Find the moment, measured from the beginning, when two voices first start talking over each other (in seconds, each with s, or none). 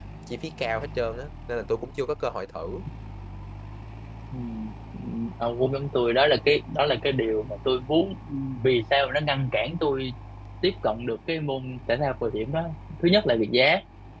none